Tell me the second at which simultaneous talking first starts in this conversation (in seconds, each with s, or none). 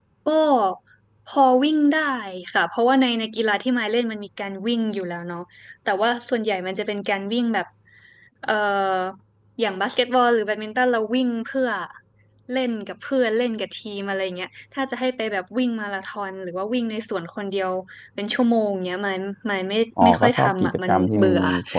20.0 s